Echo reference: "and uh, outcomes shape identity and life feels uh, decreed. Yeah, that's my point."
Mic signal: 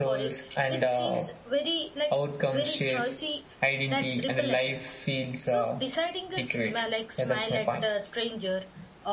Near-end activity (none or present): present